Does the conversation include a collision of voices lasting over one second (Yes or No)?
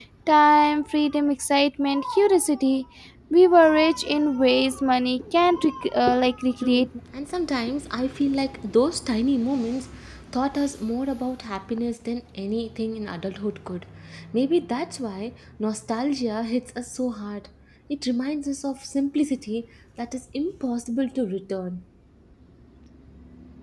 No